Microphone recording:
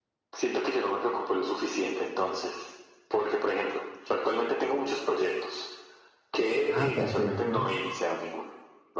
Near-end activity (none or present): present